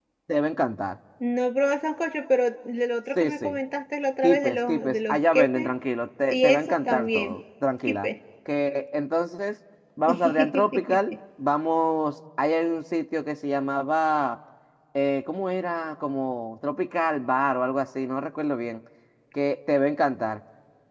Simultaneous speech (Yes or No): Yes